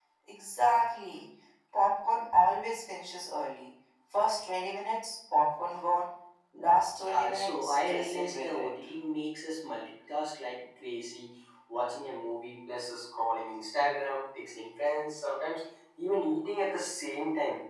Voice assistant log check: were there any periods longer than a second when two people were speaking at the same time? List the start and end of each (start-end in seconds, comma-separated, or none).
7.1-8.7